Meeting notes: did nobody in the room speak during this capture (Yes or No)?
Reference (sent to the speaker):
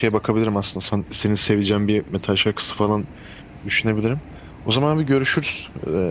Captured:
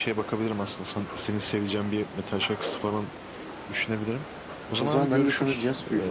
No